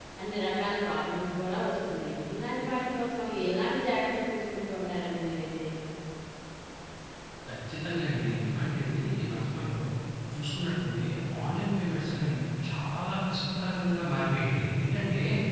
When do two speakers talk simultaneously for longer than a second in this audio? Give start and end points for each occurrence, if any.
none

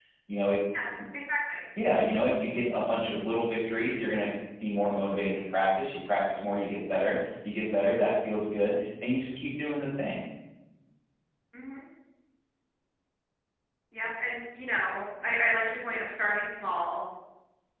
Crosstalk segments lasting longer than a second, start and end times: none

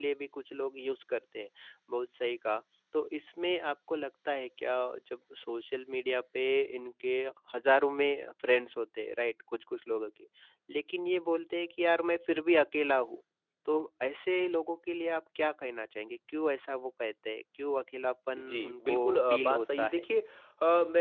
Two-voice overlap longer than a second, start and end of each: 18.4-20.0

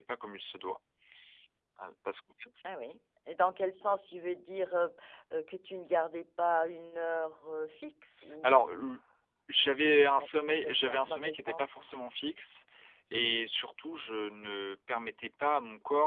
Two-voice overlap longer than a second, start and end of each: 9.6-11.8

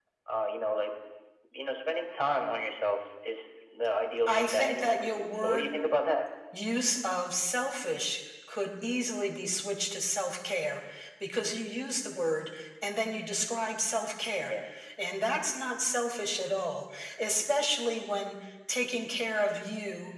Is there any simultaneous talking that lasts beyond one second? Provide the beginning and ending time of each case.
4.3-5.7

